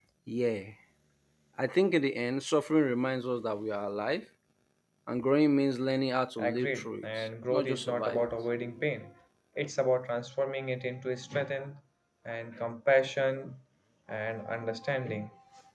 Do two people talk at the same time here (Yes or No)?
Yes